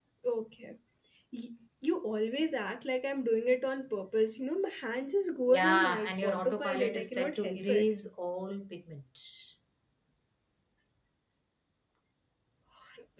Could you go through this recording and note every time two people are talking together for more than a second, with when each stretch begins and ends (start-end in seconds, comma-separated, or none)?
5.5-7.9